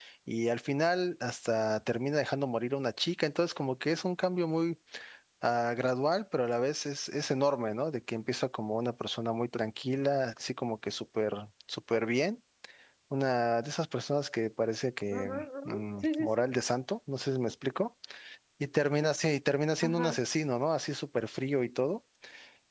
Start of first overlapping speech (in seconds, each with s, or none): 15.1 s